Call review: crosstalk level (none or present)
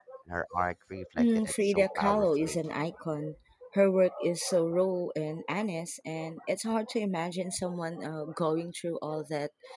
present